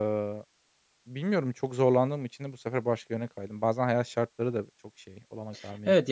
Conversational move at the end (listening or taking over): taking over